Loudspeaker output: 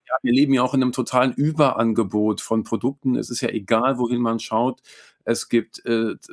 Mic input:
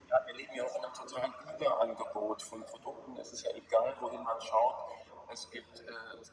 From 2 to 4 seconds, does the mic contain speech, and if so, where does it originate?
echo only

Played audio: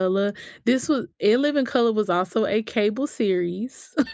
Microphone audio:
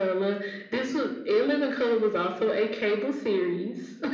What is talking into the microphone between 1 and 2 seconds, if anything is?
echo only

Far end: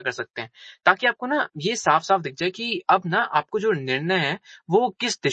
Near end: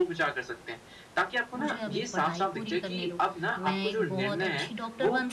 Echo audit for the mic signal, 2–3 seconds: both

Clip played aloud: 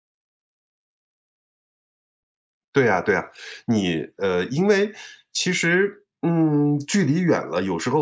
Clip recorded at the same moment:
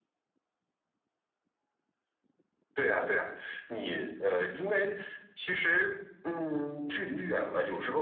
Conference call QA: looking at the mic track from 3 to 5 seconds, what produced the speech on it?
echo only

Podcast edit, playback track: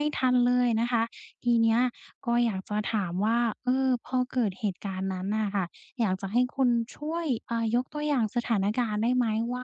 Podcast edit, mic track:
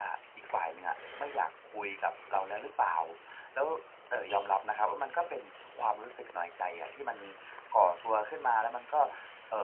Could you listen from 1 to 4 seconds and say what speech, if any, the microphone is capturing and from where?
user only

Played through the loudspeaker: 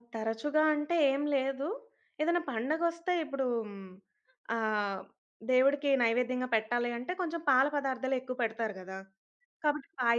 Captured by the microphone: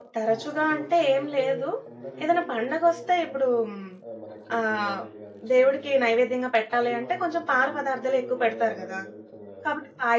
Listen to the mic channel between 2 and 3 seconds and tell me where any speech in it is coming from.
both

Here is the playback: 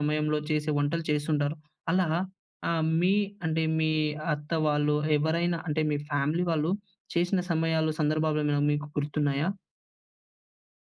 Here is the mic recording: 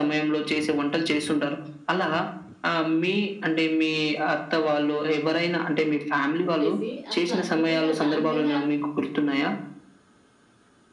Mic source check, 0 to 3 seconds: echo only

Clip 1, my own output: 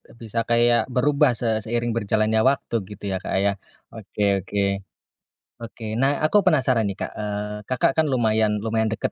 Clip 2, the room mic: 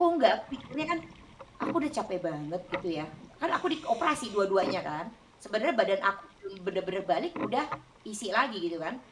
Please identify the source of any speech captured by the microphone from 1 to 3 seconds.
user only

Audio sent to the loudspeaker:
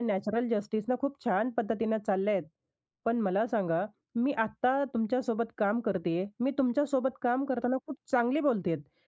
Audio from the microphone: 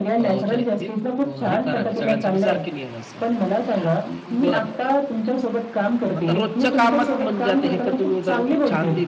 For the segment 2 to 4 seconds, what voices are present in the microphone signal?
both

